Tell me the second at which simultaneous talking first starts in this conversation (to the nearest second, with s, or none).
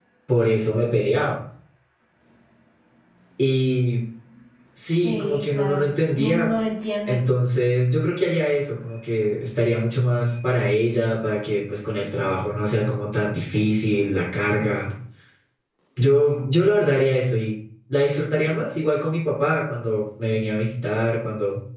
5 s